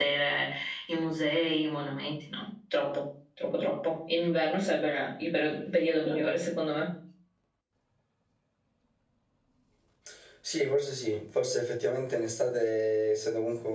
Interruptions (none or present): none